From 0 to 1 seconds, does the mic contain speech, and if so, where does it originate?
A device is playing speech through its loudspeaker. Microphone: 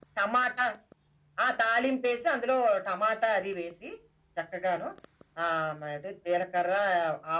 echo only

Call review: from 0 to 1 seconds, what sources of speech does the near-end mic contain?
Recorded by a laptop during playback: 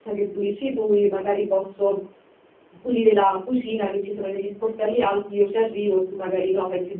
user only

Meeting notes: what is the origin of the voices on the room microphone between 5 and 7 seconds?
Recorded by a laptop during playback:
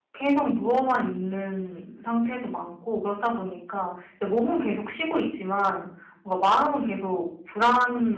user only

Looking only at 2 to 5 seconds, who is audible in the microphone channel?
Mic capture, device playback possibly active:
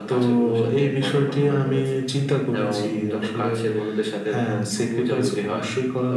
echo only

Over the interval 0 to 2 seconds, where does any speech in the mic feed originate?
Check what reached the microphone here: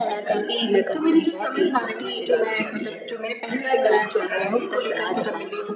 echo only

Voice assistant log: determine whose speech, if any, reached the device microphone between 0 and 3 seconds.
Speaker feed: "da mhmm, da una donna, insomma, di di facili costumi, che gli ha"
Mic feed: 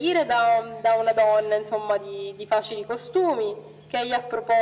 echo only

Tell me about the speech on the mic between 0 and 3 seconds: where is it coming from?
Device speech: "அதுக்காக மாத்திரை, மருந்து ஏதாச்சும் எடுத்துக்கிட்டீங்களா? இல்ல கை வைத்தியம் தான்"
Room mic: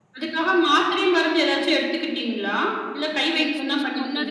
echo only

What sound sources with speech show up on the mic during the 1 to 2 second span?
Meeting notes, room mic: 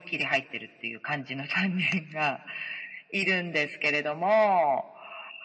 echo only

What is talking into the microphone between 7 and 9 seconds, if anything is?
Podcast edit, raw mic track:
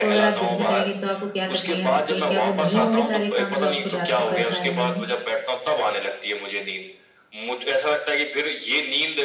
echo only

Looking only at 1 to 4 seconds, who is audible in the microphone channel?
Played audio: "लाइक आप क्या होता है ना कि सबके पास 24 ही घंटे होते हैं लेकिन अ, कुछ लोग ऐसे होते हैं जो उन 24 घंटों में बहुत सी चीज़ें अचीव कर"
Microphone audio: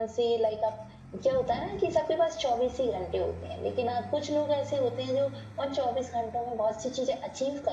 echo only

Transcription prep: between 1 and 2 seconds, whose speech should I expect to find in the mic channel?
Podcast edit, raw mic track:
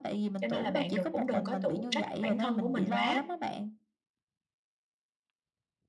both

